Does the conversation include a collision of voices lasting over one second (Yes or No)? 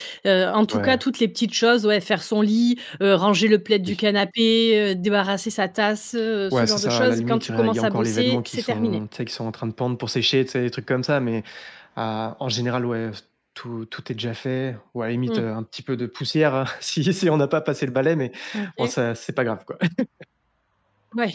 Yes